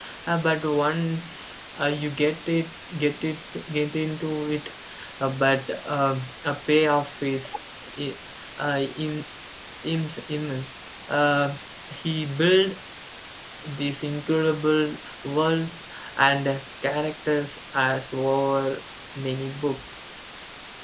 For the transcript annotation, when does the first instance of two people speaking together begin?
none

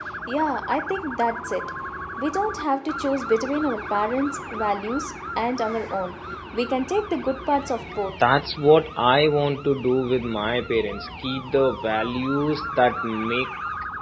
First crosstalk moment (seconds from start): none

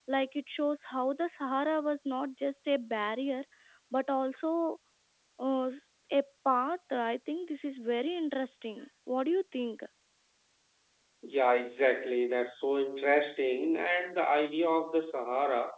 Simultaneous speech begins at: none

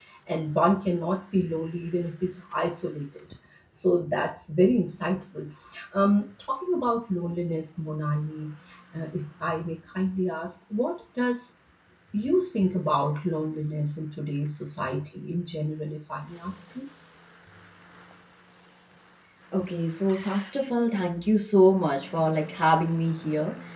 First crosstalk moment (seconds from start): none

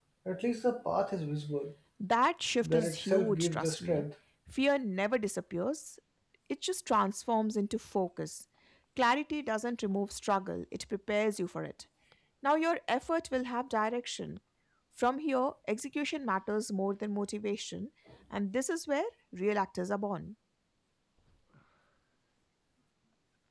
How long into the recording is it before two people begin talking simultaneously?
2.6 s

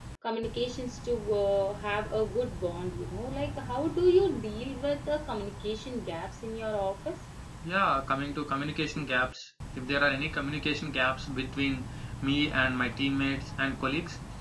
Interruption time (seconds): none

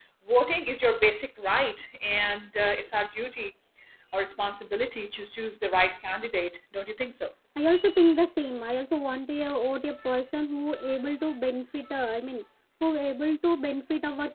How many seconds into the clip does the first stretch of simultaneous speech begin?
none

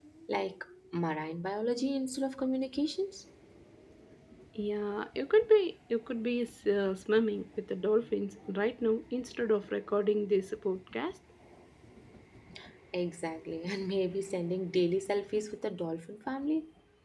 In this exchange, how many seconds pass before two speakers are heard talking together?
none

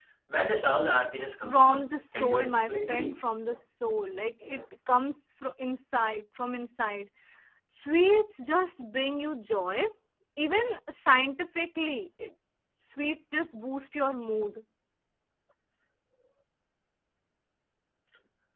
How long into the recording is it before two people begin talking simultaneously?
1.3 s

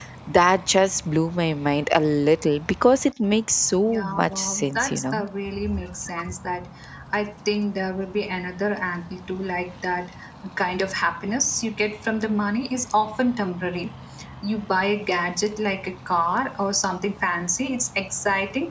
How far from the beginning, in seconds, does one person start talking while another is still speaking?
3.9 s

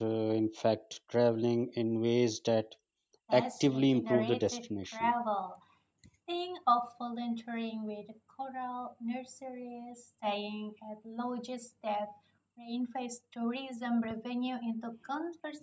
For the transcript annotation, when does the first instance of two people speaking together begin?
3.3 s

